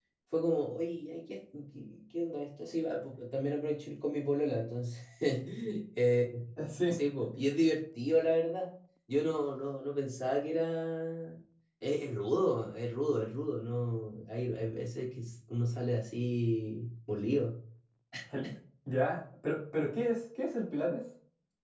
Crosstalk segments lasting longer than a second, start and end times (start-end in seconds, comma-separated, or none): none